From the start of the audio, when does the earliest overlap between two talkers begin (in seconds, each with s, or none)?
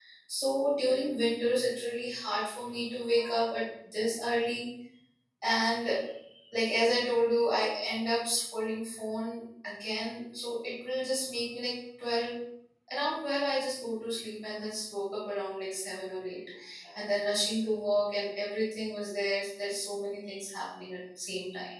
none